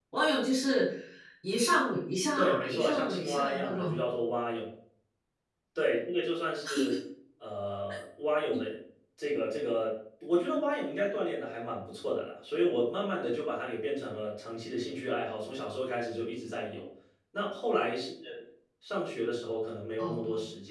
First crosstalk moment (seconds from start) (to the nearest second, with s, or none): 2 s